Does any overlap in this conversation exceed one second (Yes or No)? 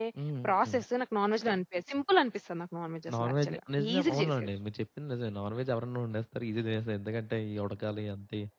Yes